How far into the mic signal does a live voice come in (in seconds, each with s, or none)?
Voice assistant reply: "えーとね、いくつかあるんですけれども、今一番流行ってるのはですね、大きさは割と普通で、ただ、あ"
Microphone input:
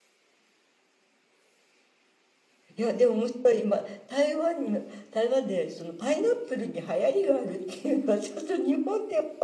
2.8 s